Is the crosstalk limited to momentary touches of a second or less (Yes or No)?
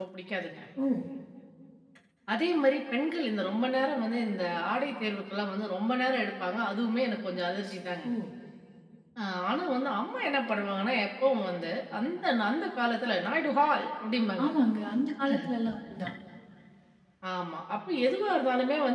Yes